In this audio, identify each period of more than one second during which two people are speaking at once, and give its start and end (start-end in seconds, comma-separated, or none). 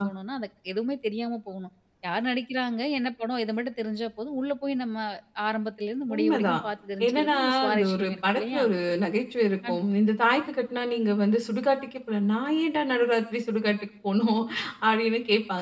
7.0-8.6